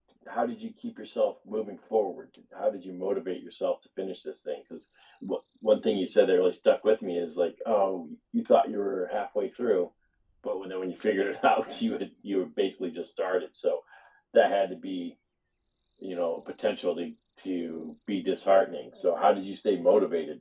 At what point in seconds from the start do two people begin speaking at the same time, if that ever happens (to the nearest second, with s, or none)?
none